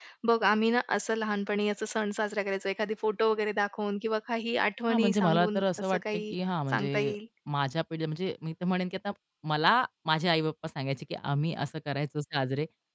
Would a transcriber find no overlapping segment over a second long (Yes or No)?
No